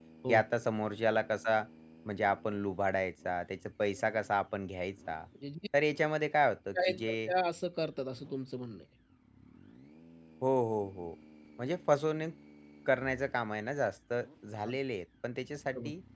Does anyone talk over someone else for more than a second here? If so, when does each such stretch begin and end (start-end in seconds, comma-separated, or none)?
none